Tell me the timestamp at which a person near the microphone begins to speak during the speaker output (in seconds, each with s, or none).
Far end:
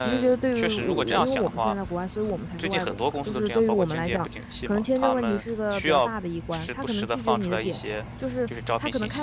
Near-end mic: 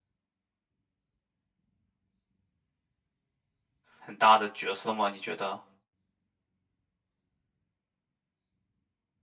4.0 s